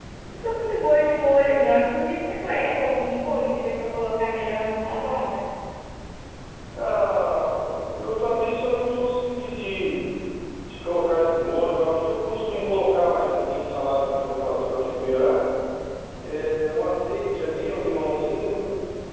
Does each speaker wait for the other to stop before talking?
Yes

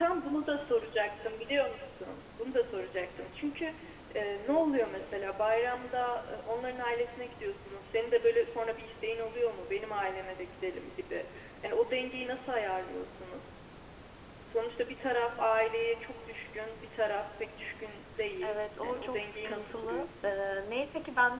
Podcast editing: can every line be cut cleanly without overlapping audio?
No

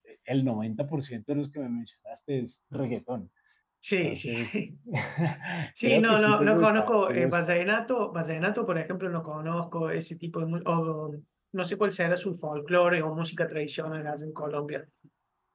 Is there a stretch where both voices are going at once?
Yes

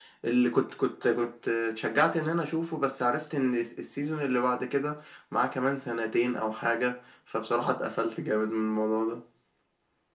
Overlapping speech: No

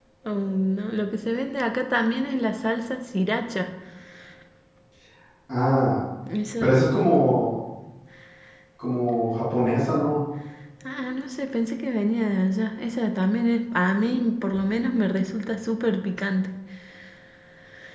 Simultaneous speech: No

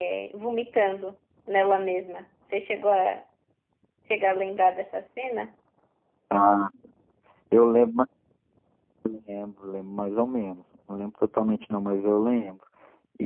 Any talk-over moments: No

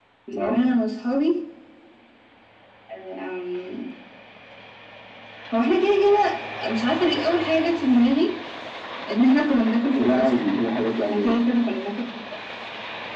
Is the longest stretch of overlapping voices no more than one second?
Yes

